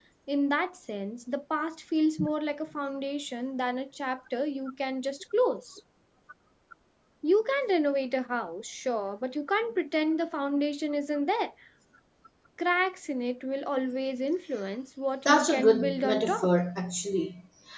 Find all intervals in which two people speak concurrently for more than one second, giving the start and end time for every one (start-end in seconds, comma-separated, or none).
15.2-16.5